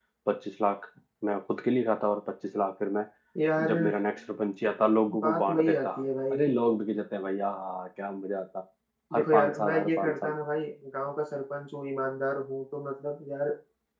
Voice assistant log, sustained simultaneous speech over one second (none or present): present